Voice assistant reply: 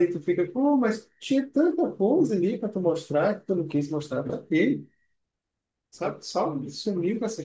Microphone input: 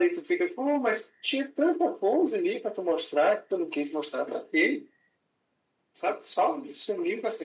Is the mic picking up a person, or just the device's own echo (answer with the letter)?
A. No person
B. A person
A